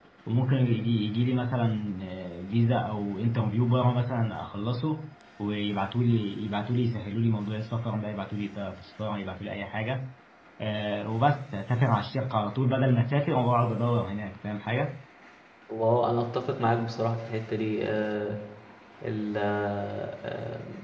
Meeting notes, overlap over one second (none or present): none